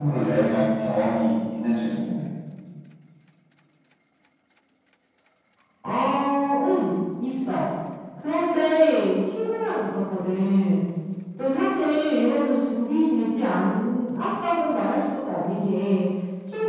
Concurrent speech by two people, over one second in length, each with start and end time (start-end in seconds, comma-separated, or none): none